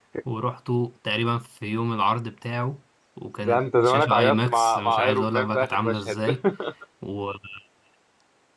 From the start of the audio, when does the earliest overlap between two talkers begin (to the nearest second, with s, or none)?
3 s